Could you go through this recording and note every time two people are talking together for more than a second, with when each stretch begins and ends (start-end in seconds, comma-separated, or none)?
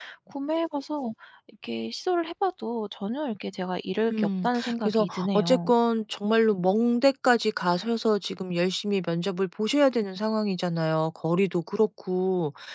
4.1-5.7